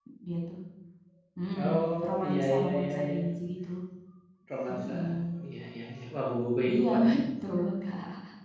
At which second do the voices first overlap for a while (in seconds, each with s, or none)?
1.6 s